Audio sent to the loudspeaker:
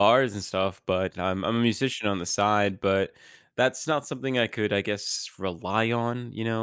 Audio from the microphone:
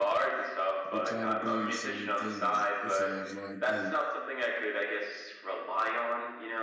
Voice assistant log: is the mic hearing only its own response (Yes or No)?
No